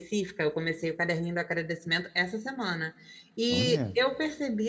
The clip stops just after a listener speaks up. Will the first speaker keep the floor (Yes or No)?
Yes